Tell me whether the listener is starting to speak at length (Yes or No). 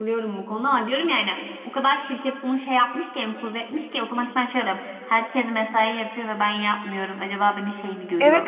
Yes